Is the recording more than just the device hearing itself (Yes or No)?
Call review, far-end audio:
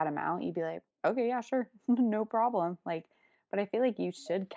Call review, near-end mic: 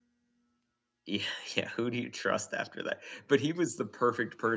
Yes